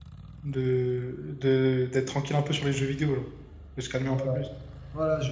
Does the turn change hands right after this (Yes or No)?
Yes